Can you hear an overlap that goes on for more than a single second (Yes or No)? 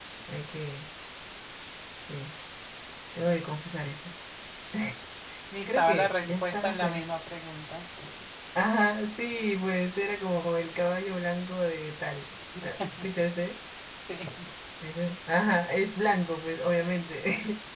Yes